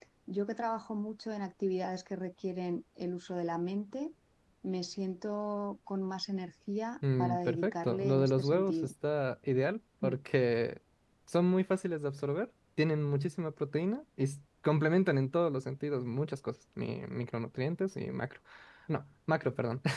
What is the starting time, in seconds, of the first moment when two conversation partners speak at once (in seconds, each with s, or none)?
7.0 s